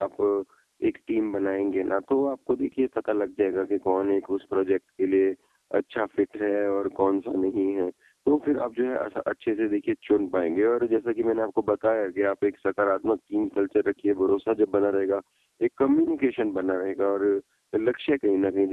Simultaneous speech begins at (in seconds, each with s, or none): none